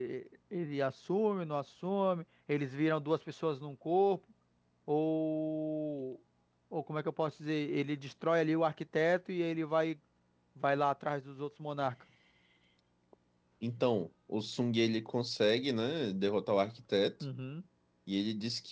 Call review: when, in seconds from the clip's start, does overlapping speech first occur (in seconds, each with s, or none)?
none